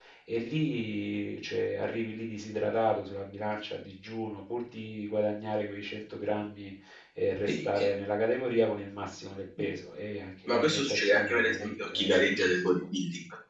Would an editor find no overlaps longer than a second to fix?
No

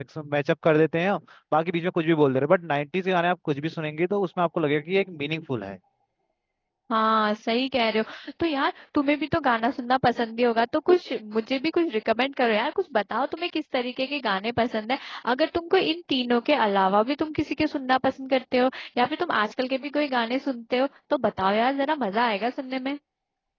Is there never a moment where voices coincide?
Yes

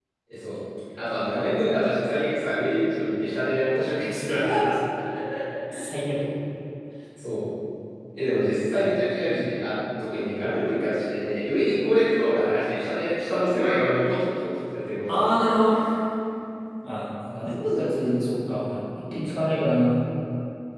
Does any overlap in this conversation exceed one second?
No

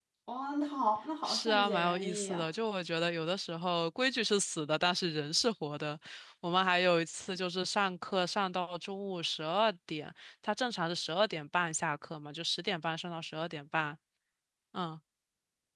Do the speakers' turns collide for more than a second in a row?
Yes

